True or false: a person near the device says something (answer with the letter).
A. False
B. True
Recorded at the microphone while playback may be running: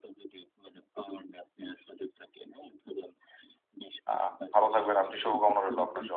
B